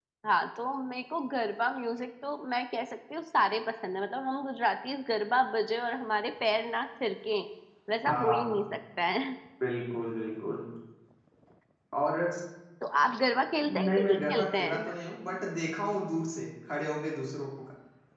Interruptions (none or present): present